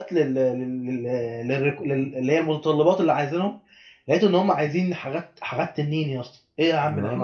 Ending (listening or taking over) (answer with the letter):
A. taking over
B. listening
A